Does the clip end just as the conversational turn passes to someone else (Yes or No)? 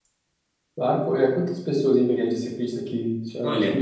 Yes